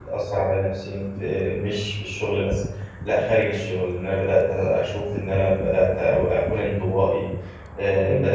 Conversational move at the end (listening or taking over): listening